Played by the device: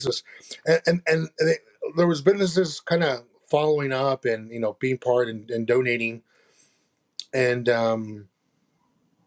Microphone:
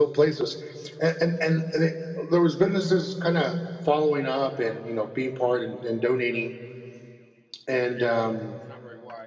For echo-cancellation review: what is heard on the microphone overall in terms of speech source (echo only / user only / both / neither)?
both